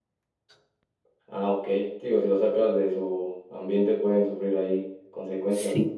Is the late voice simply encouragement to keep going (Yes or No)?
No